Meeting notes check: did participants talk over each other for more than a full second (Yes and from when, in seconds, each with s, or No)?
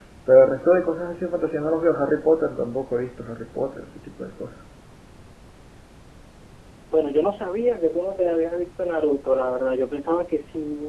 No